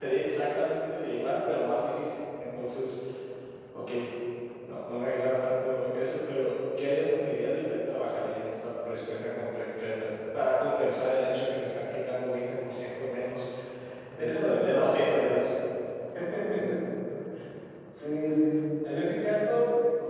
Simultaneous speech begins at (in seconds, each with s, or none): 14.2 s